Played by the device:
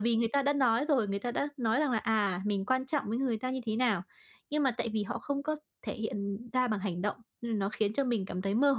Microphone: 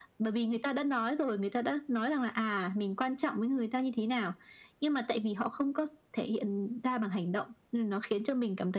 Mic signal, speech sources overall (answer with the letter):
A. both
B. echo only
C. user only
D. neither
B